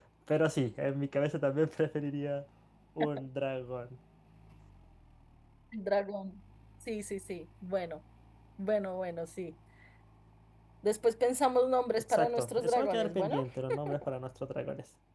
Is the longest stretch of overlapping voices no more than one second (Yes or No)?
No